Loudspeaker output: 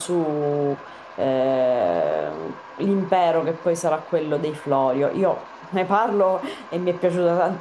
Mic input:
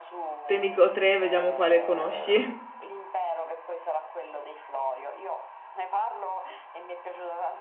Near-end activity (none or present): present